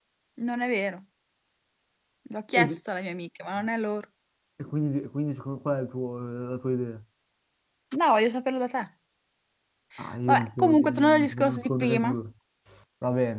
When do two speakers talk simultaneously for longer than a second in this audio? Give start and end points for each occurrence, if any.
10.3-12.1

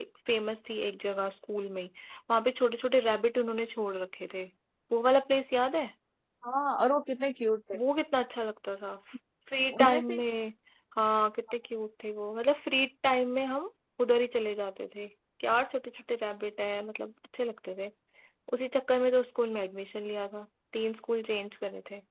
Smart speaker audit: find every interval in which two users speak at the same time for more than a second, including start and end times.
none

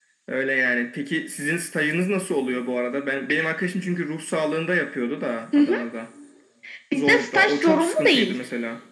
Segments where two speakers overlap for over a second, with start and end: 6.9-8.3

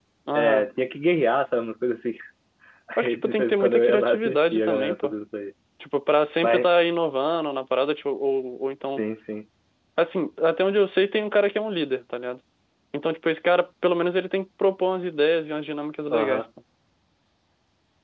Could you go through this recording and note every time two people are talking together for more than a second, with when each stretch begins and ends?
3.0-5.1

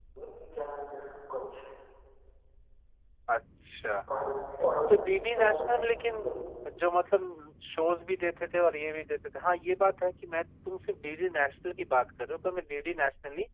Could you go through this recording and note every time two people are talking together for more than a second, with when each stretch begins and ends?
4.9-6.2

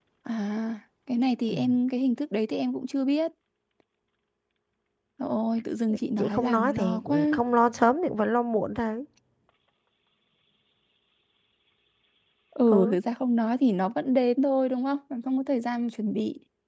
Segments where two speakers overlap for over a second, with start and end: 6.2-7.4

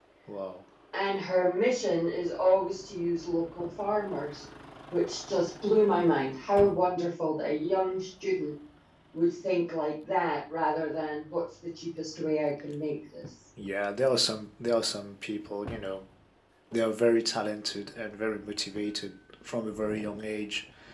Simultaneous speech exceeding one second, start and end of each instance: none

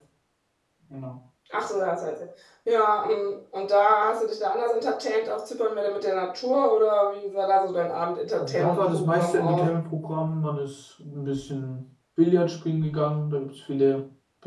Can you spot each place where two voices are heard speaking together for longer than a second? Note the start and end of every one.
8.4-9.7

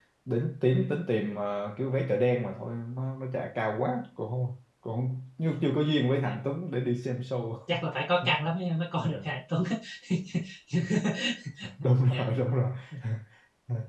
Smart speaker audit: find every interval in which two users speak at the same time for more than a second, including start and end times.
none

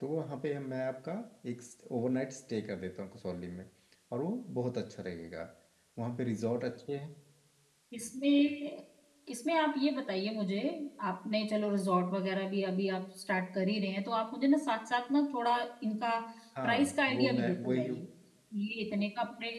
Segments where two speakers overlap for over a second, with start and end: 16.6-17.9

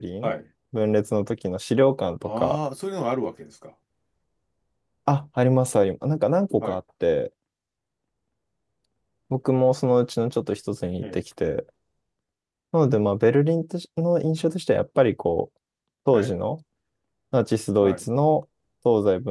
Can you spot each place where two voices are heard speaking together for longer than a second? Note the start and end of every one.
none

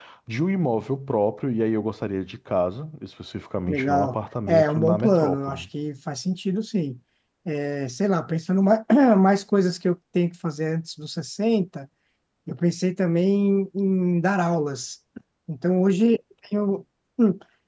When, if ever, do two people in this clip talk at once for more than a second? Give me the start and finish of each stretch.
3.7-5.7

